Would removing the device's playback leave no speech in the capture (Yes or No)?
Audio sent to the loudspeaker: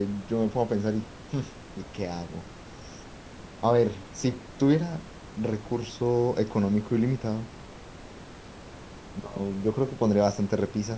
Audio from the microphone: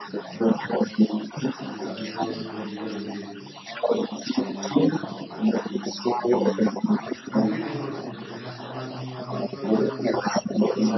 No